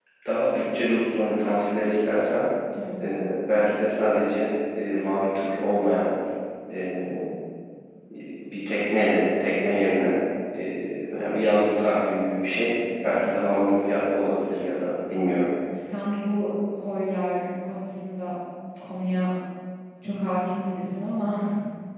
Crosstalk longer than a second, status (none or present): none